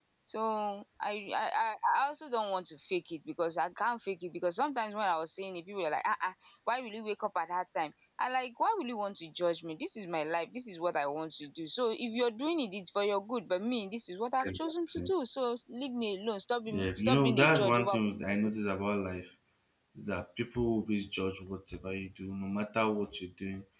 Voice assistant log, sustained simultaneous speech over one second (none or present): present